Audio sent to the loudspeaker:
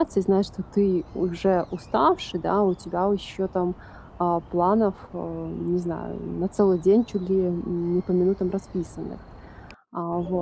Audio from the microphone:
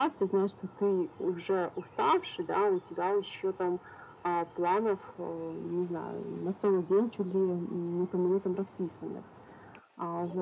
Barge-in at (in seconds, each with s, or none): none